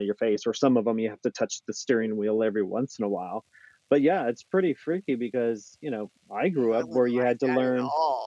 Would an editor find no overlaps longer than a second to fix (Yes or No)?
No